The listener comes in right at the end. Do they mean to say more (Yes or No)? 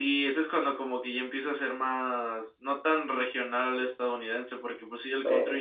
No